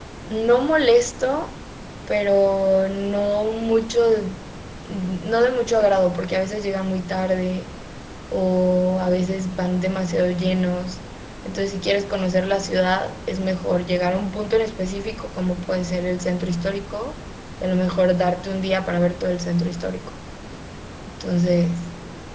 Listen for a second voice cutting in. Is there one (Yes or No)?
No